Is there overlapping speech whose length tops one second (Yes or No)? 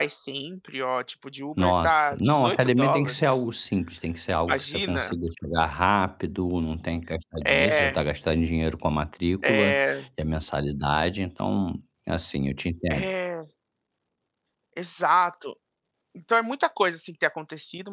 Yes